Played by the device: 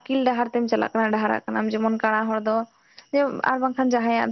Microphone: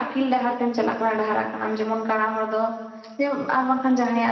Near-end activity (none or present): none